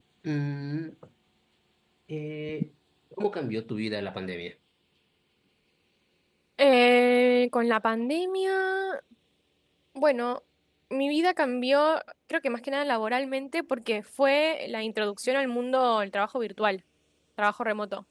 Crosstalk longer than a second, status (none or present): none